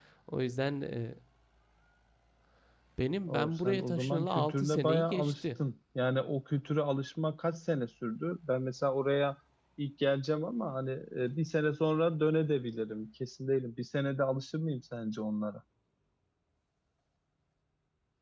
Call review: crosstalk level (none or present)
present